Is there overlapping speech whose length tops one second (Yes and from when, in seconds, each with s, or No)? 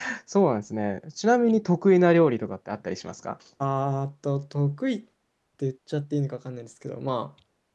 No